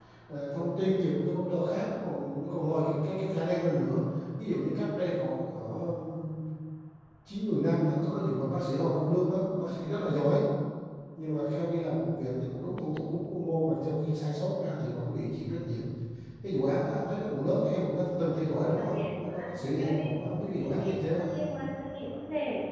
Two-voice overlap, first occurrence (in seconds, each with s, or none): 18.8 s